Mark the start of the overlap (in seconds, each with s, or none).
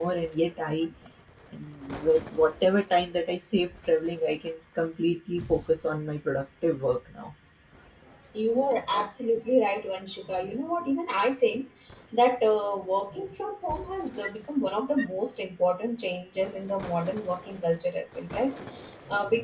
none